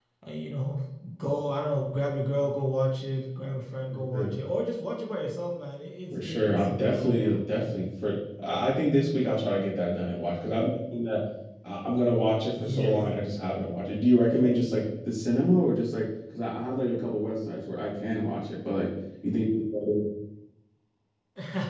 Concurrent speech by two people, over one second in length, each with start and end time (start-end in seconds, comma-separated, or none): 6.2-7.4